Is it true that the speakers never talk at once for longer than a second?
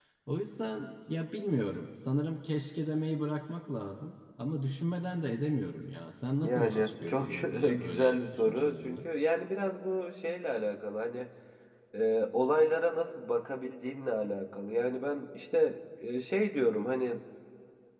No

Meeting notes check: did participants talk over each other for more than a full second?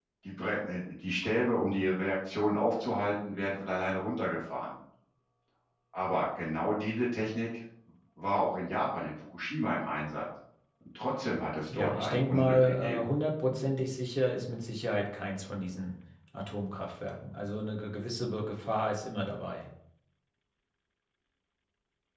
Yes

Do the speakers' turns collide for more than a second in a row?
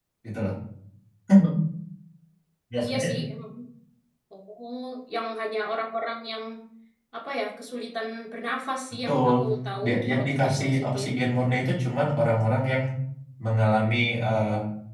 Yes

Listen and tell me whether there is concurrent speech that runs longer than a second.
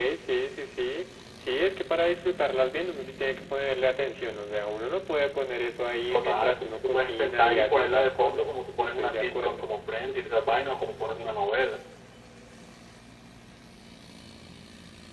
Yes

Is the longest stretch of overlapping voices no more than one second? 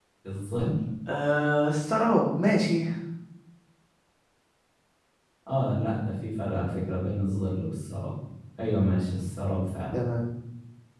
Yes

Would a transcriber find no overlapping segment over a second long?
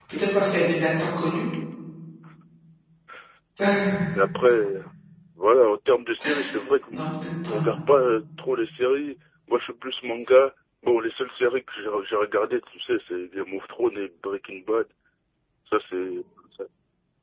Yes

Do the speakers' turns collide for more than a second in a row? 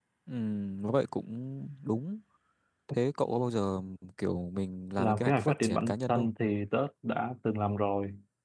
Yes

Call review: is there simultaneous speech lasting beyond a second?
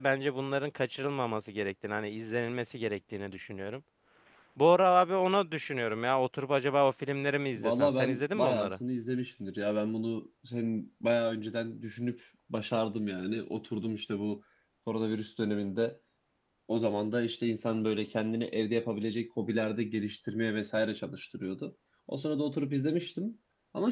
Yes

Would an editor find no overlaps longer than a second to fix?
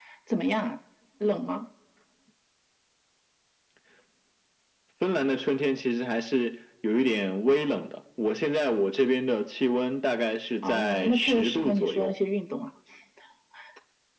No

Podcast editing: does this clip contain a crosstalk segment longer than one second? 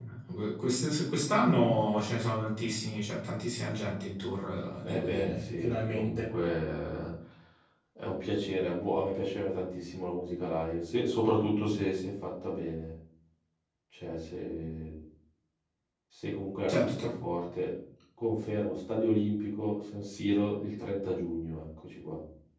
Yes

